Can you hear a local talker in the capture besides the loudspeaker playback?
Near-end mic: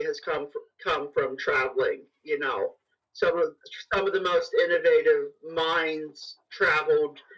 No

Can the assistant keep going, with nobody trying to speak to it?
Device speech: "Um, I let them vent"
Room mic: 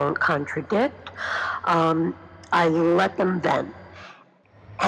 Yes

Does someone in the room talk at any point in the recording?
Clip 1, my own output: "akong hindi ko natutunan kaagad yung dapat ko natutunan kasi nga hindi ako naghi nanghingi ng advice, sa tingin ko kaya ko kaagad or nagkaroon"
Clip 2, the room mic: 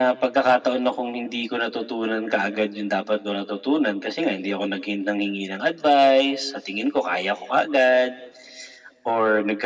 No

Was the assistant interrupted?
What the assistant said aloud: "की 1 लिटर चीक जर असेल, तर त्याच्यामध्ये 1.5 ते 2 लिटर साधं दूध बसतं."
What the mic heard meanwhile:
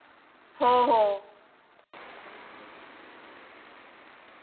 Yes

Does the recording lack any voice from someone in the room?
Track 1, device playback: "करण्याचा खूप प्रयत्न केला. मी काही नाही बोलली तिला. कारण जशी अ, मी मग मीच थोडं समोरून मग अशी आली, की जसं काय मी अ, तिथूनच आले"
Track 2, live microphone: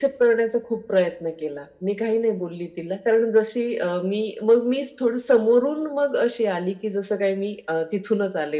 Yes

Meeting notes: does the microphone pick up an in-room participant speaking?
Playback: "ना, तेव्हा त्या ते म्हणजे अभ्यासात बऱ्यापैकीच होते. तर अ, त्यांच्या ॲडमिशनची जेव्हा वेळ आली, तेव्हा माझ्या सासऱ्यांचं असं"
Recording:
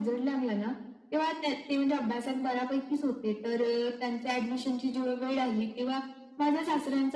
No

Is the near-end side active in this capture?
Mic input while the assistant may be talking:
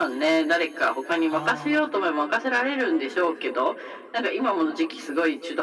Yes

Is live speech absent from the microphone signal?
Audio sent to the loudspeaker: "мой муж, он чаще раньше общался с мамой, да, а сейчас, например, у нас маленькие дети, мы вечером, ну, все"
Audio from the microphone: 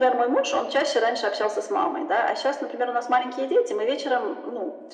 Yes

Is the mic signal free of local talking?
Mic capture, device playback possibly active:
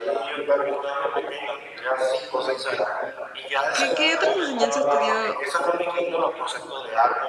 No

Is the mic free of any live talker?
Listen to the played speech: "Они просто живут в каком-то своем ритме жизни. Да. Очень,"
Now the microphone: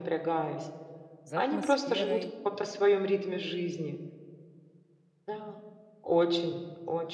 No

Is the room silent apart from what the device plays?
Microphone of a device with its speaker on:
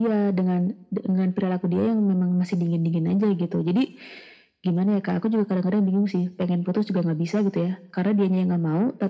Yes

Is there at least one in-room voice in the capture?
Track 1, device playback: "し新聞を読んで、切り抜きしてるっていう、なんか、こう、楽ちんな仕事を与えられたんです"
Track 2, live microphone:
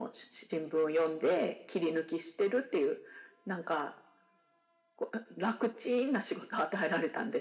No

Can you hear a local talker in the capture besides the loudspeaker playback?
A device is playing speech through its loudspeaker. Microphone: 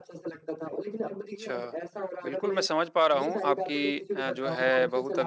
Yes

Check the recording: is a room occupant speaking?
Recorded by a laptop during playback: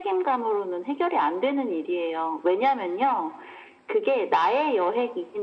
No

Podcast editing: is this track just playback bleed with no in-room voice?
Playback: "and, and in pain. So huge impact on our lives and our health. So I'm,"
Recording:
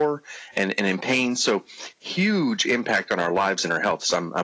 Yes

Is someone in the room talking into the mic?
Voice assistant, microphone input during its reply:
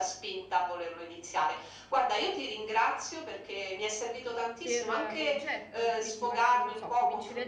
Yes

